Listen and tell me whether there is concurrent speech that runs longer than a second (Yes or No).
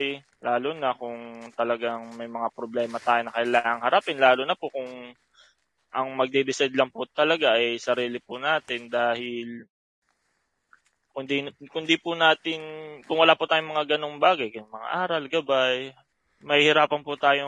No